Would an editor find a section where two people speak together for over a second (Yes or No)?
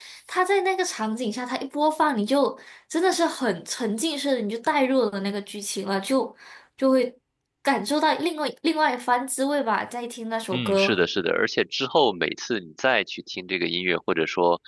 No